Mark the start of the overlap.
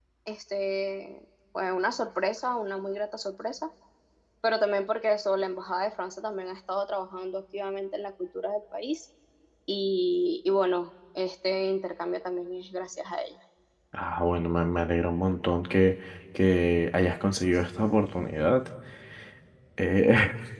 none

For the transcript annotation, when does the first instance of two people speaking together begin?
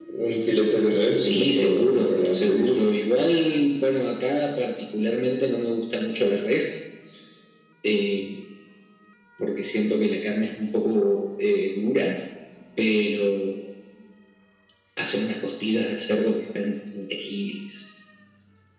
1 s

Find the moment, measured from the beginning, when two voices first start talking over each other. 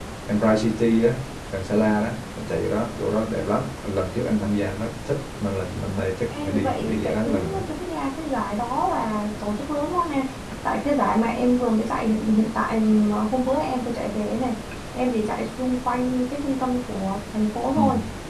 6 s

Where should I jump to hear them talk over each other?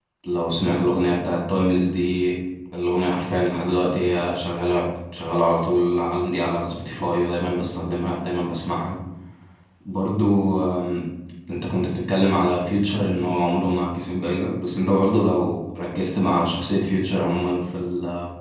none

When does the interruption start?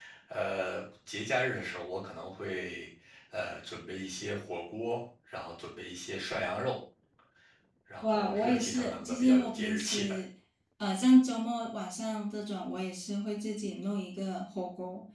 8 s

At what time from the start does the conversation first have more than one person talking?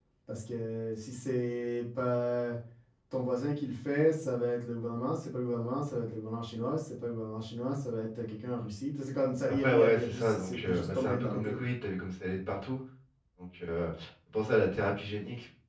9 s

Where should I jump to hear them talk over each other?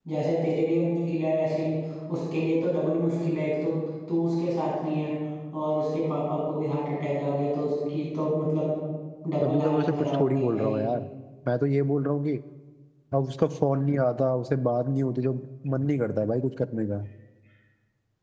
9 s

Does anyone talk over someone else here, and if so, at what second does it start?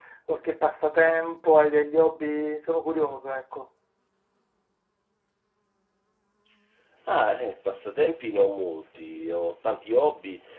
none

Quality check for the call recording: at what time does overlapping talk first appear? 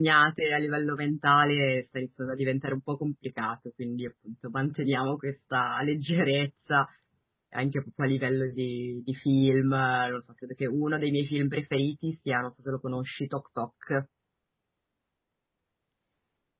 none

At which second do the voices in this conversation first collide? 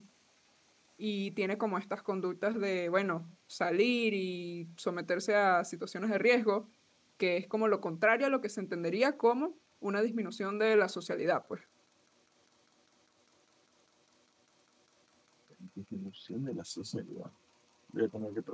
none

